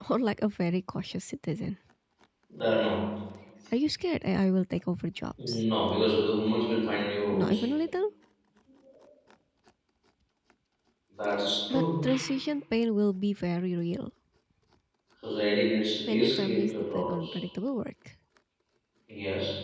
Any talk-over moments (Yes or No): Yes